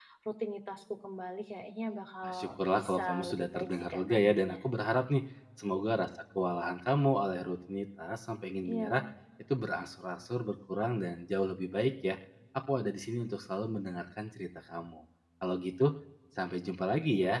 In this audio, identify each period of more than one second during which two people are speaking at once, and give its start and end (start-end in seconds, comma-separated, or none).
2.3-4.6